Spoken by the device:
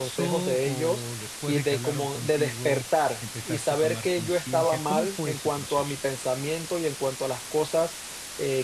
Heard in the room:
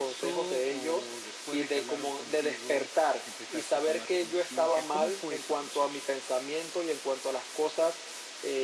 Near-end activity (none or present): none